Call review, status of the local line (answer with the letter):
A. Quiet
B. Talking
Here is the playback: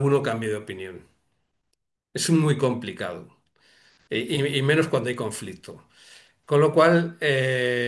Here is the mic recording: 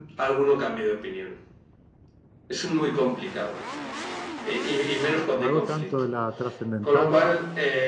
B